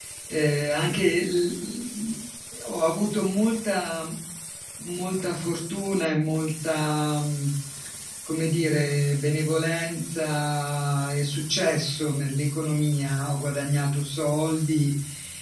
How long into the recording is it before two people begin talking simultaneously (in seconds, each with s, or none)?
none